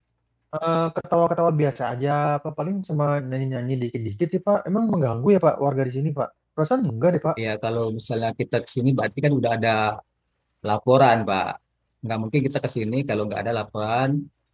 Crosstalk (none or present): none